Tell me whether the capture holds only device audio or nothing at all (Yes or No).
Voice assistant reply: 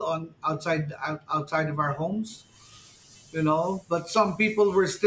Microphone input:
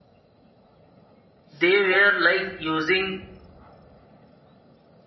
No